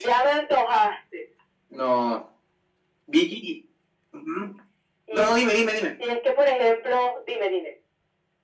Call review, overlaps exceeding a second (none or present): none